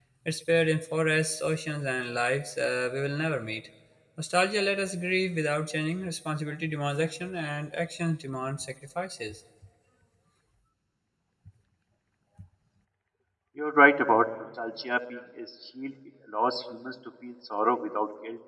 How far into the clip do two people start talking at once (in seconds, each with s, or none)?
none